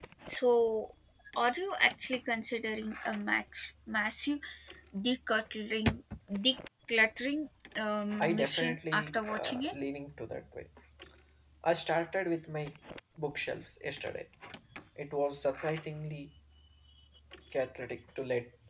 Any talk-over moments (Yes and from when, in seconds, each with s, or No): Yes, from 8.2 s